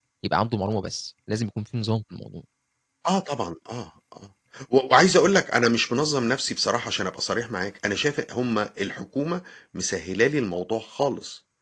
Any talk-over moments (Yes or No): No